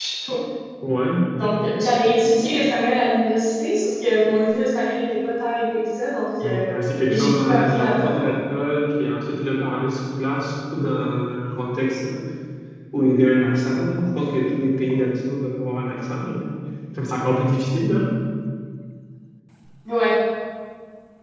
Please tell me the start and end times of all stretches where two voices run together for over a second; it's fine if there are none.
6.4-8.3

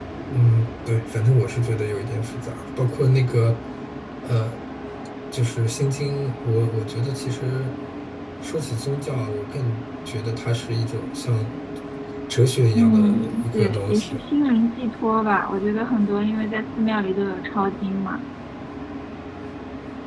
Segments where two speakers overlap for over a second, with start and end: 12.8-14.2

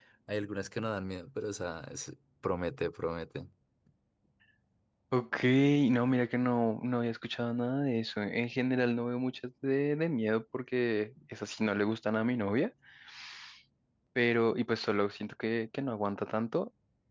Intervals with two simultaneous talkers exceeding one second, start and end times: none

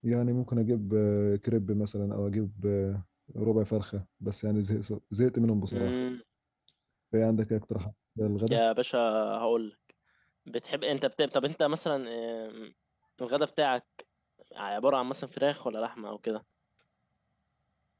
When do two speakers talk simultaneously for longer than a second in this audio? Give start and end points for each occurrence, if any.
none

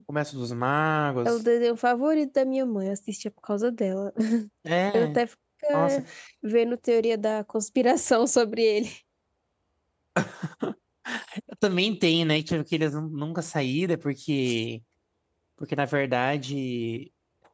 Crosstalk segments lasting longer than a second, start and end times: none

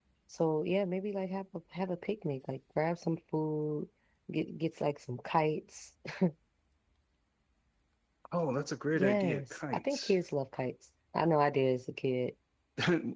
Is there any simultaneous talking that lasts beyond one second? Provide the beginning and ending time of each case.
8.9-10.1

